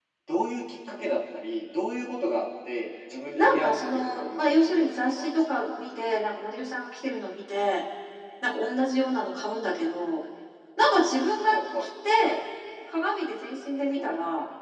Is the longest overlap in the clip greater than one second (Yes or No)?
Yes